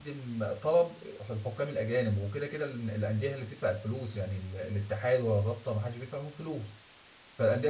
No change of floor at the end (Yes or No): Yes